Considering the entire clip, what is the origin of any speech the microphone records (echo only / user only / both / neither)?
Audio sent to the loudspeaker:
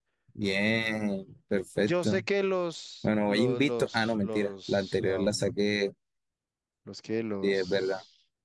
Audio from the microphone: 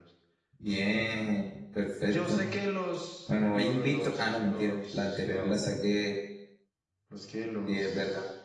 echo only